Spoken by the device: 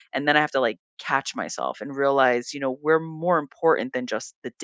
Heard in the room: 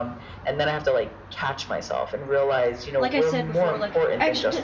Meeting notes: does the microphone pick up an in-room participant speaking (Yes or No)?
Yes